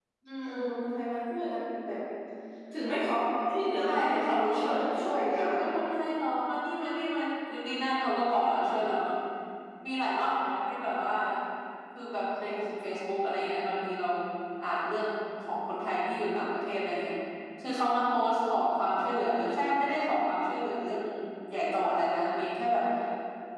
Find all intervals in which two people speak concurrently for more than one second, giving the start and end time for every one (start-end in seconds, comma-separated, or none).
3.9-5.6